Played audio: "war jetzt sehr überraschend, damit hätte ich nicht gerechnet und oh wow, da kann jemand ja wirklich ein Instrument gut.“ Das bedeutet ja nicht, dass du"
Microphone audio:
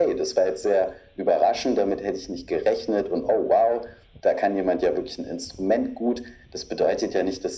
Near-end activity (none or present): none